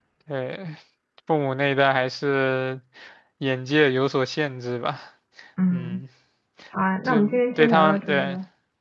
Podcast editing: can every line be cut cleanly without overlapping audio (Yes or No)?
No